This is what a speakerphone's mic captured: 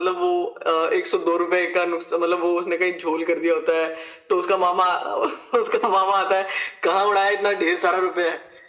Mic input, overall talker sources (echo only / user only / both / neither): echo only